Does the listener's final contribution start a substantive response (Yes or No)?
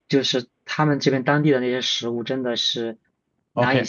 Yes